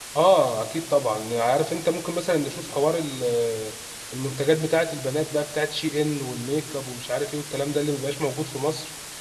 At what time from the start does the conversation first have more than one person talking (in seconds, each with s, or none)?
none